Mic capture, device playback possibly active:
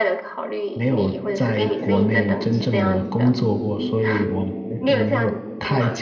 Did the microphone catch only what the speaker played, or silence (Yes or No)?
No